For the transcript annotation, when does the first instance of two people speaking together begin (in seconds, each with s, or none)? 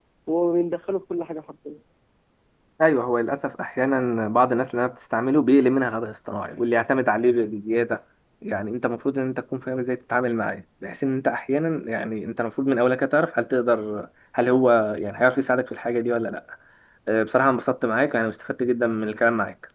none